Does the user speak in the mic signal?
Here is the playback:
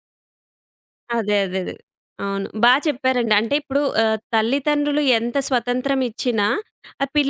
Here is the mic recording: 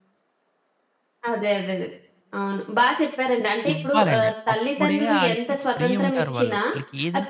Yes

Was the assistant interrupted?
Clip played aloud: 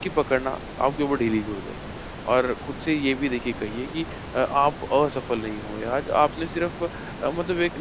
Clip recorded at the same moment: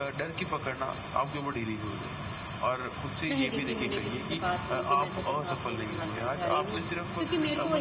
Yes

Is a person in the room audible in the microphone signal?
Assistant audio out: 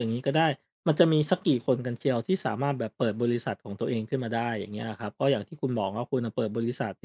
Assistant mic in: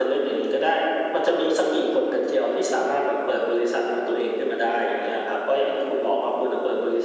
No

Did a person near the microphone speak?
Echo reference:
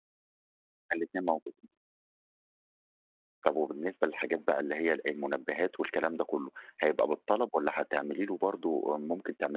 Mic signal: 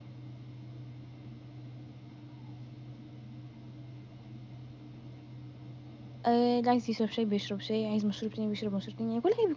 Yes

